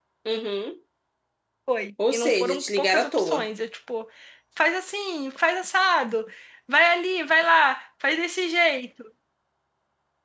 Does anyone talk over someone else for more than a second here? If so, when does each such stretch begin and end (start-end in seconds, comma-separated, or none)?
2.1-3.5